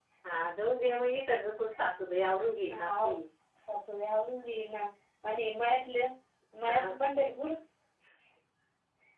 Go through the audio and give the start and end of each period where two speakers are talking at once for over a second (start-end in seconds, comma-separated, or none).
none